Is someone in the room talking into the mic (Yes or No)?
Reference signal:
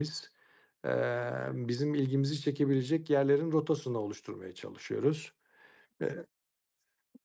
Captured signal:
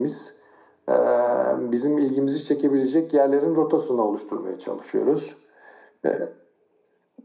No